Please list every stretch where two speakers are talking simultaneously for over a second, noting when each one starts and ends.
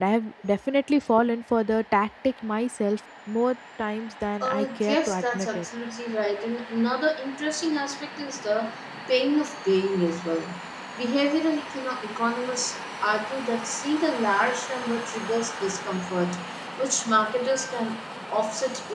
4.4-5.7

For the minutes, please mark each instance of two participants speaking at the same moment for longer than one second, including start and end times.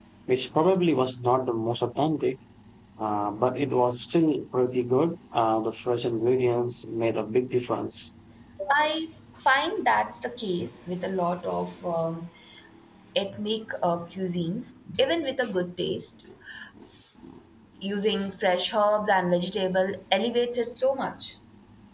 none

